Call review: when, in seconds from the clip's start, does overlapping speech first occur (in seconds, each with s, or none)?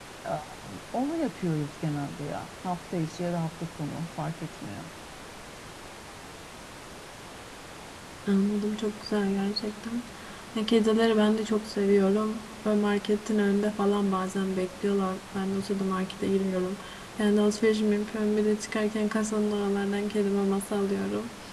none